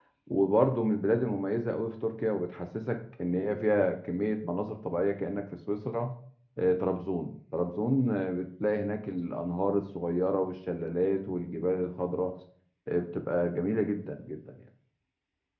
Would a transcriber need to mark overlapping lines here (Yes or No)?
No